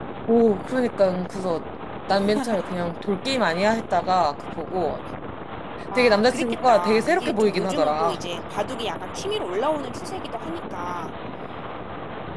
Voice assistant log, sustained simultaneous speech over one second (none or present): present